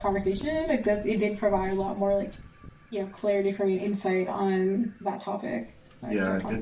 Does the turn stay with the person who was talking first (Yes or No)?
No